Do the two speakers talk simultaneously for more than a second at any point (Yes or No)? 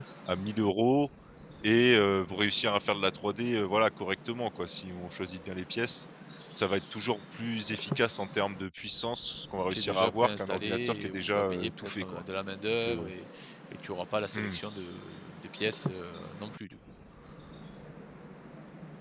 Yes